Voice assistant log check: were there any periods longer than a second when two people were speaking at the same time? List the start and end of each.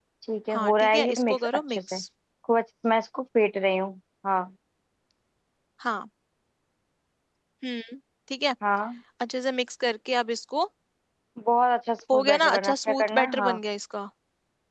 0.5-2.0, 12.1-13.5

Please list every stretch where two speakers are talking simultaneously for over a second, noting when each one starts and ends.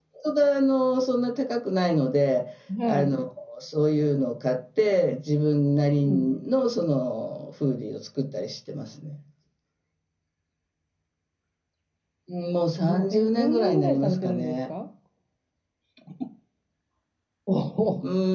12.8-14.6

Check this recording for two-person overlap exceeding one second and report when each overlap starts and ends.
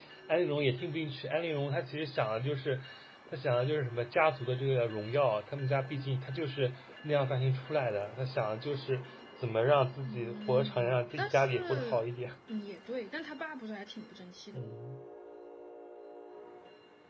10.1-12.1

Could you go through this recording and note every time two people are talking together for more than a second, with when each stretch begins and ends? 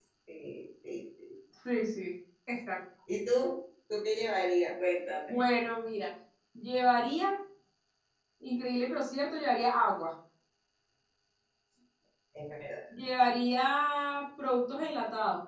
none

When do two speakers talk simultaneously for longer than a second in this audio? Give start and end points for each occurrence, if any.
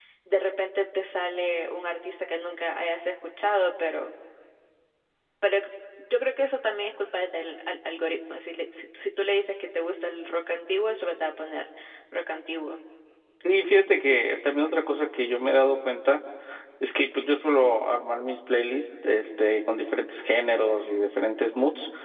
none

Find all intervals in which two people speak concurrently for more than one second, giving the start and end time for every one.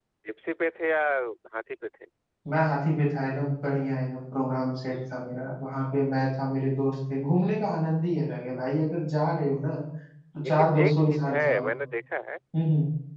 10.4-11.7

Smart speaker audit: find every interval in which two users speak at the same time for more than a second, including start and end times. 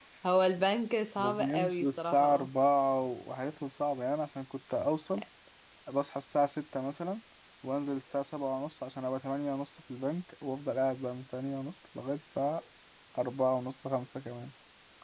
1.2-2.5

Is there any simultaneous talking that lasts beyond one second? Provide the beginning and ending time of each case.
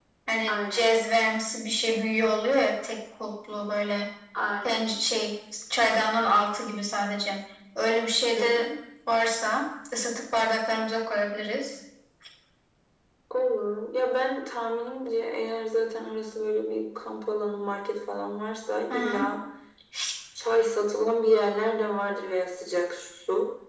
none

